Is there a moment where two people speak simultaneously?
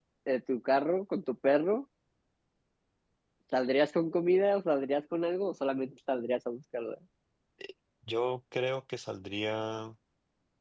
No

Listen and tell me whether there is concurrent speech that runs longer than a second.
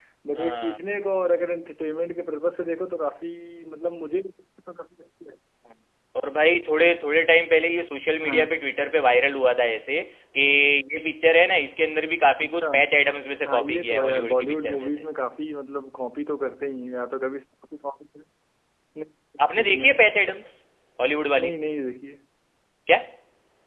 Yes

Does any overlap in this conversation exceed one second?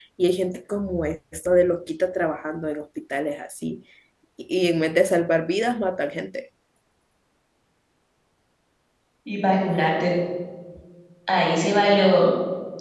No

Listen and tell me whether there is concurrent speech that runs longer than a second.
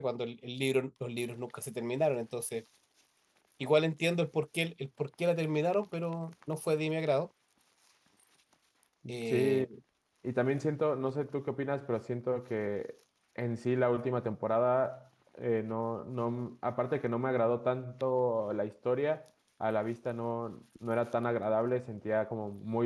No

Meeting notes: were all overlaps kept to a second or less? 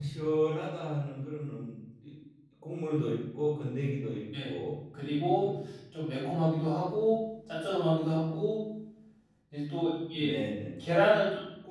Yes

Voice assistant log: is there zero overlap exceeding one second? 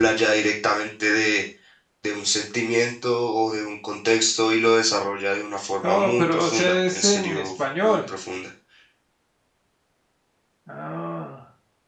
No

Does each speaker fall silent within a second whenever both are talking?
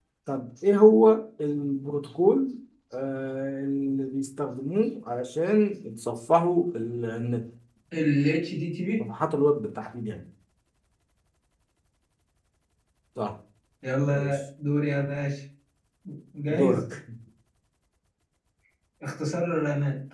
Yes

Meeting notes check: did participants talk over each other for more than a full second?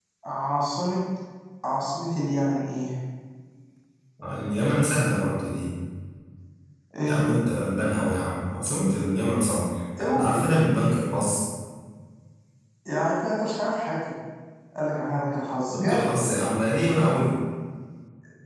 No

